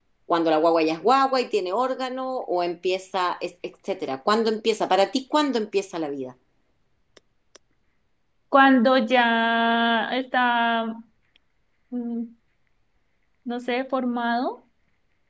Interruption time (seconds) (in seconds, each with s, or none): none